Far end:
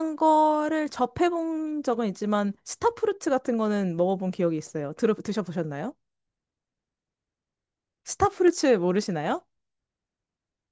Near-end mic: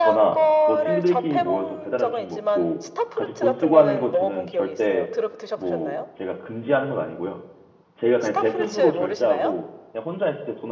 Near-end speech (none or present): present